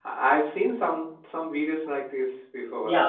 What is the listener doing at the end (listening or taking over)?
taking over